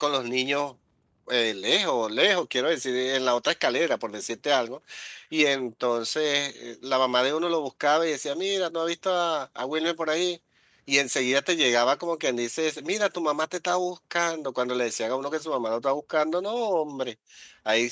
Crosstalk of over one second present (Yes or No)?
No